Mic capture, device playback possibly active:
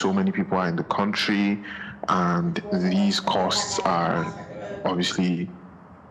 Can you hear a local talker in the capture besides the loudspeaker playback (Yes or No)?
Yes